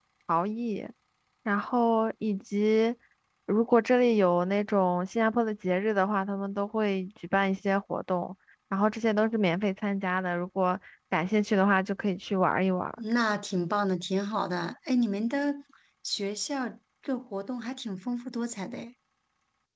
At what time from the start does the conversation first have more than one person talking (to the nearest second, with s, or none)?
none